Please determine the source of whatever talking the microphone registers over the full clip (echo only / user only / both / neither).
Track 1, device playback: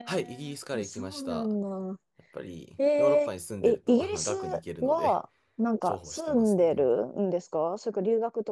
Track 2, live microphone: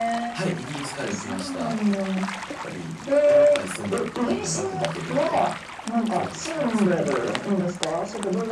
echo only